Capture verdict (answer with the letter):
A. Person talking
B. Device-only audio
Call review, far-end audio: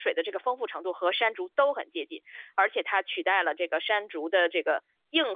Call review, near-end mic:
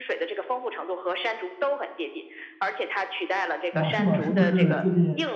A